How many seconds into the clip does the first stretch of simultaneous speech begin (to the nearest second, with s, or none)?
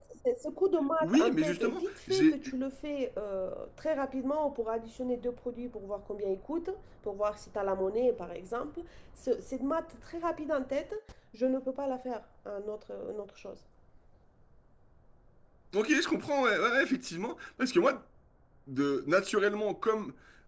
1 s